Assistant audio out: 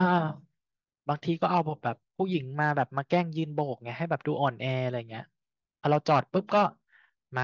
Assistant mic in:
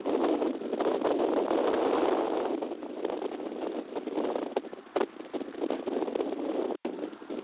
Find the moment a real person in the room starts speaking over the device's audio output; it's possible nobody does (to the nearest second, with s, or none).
none